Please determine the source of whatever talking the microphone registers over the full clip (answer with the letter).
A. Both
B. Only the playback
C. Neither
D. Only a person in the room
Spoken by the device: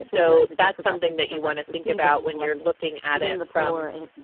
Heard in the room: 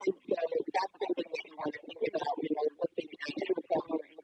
B